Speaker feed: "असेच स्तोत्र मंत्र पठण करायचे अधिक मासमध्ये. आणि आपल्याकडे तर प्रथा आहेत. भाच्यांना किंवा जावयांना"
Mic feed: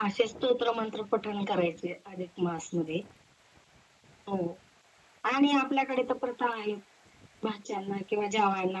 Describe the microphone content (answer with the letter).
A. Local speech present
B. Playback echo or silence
B